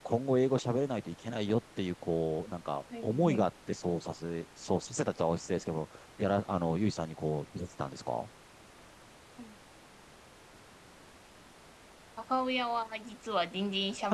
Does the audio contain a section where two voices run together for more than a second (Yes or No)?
No